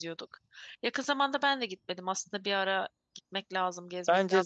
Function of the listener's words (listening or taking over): taking over